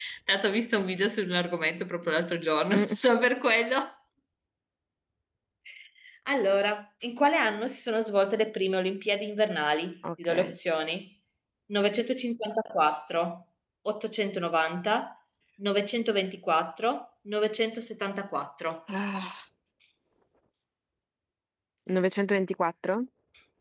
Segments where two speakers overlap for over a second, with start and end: none

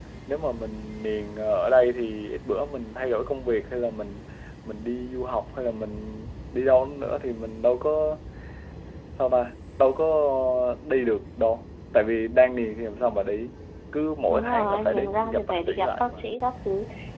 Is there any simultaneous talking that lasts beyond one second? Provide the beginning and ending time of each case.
14.3-16.2

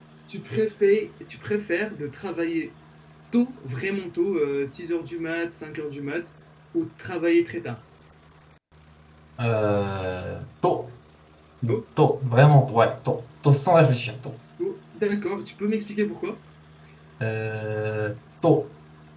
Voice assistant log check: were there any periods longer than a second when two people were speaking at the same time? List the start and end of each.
none

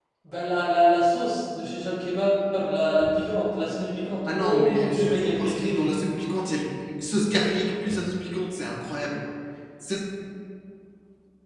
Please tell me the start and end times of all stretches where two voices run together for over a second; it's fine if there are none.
4.2-6.0

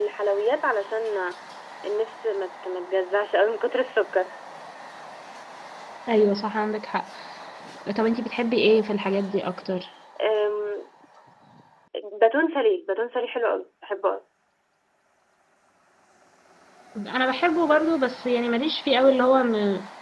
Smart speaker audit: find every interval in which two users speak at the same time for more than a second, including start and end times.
none

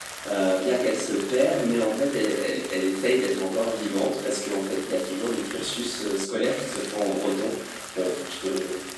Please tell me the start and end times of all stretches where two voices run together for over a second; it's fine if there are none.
none

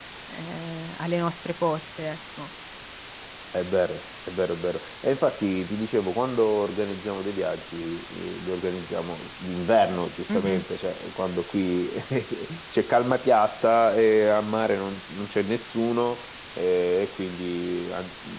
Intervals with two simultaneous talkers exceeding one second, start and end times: none

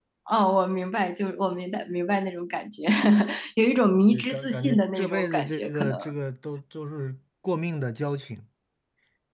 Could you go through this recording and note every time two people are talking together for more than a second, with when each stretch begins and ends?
4.1-6.0

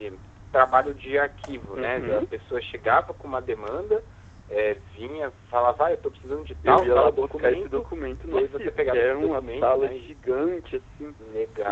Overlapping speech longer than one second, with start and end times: 6.7-7.9, 8.3-9.9

